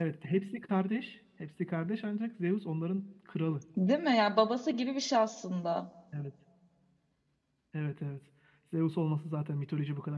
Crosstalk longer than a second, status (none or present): none